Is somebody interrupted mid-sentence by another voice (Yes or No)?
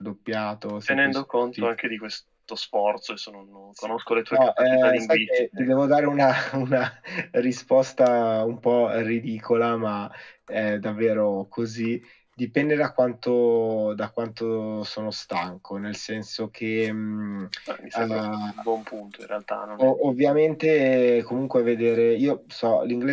Yes